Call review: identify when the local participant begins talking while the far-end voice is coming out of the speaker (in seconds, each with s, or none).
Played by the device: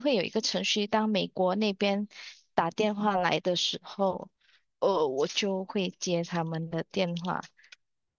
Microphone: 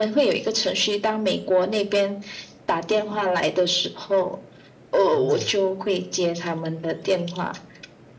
5.1 s